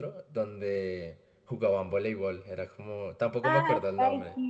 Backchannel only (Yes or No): No